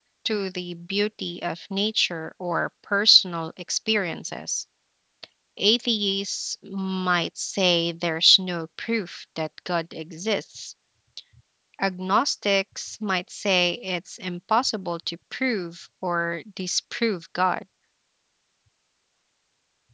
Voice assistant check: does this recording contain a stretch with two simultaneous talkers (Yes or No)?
No